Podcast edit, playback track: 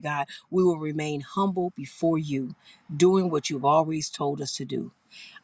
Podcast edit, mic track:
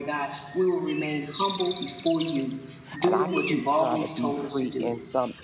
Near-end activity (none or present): present